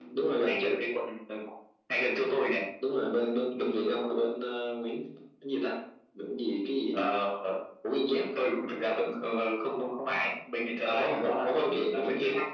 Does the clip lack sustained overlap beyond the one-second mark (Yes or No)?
No